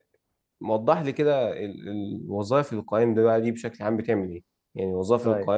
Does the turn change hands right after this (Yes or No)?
No